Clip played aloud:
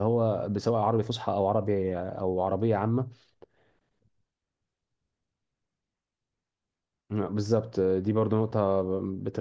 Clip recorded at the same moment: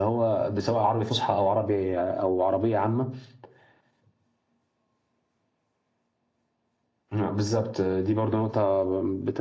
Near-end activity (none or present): none